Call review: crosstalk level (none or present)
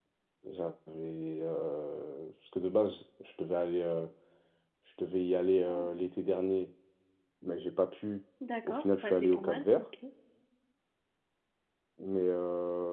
present